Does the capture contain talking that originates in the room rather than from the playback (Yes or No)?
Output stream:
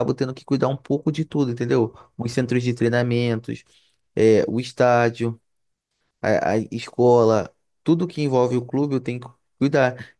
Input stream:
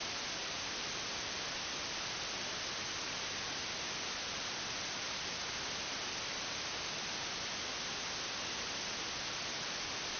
No